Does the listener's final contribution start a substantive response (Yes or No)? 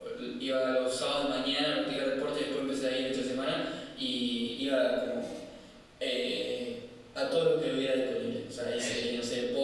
No